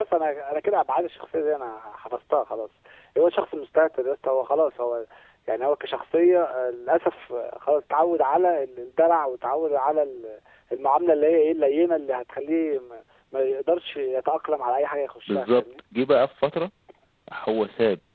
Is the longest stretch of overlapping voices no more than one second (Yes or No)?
Yes